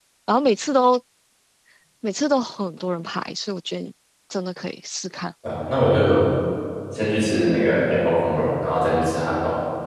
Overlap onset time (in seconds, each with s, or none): none